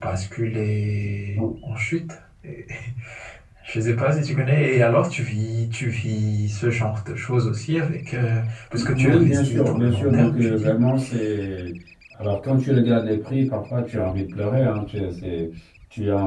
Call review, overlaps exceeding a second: present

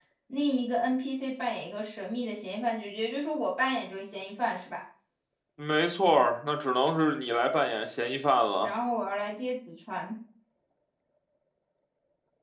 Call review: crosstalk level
none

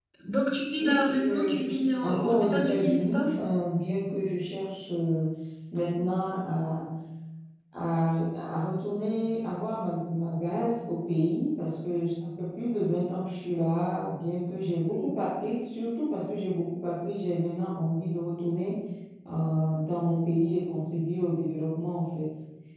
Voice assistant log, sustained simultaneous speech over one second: present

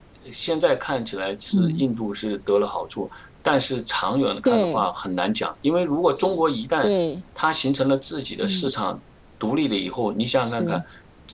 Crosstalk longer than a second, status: none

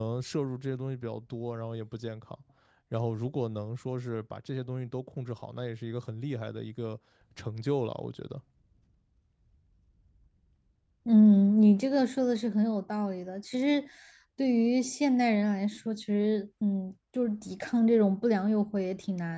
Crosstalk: none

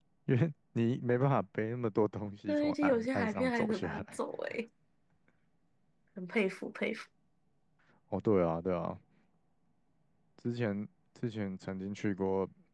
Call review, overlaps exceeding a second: present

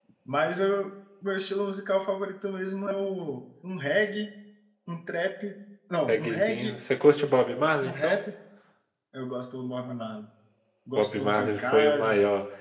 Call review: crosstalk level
present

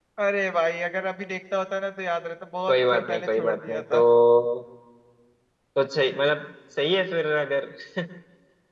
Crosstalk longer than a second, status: present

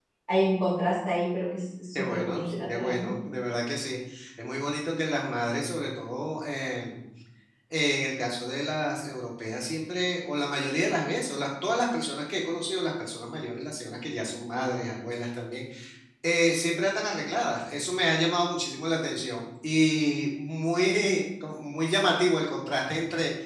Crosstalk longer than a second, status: present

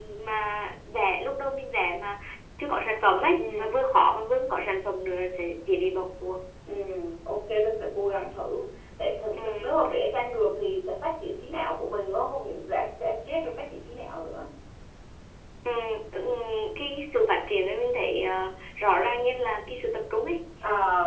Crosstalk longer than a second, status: none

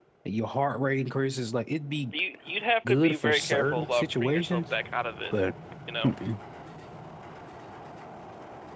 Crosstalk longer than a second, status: present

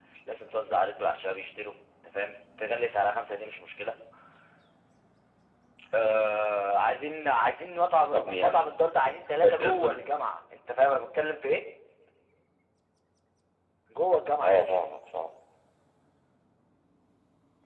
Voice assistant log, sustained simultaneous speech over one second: none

